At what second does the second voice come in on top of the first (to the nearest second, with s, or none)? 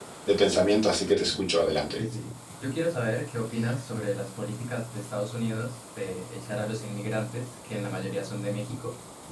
none